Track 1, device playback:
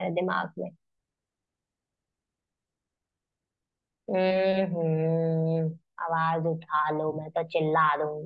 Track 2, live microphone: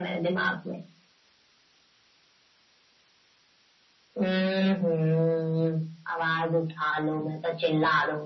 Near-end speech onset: none

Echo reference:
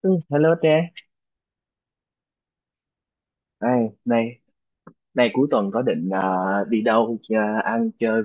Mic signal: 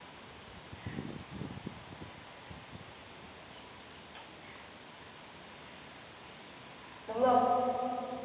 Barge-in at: 7.1 s

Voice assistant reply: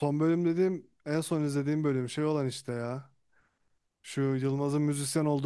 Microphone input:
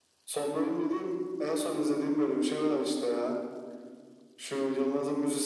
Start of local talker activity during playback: none

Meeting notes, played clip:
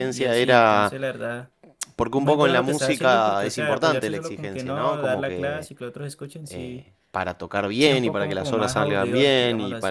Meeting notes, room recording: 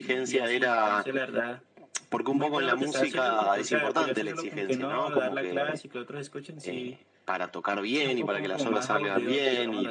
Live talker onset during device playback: none

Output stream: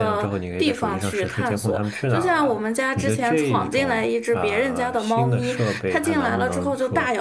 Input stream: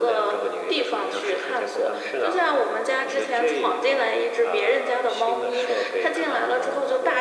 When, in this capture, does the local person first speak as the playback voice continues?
none

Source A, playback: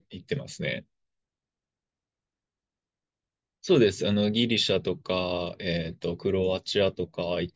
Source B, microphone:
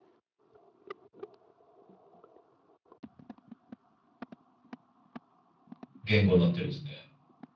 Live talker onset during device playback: 6.0 s

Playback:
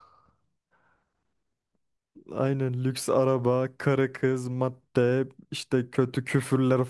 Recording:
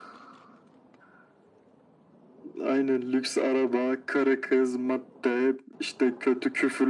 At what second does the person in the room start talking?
none

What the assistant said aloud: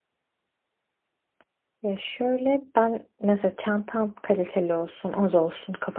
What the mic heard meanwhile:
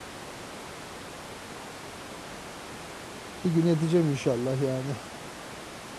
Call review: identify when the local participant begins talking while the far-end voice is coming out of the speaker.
3.4 s

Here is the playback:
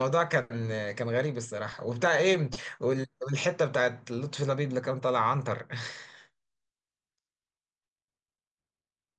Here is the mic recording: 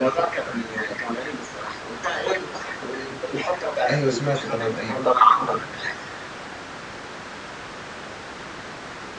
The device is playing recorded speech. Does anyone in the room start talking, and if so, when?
3.9 s

